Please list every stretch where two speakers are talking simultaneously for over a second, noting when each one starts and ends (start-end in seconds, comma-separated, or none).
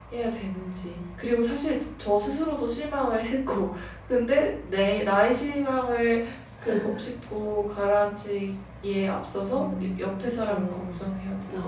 9.5-10.8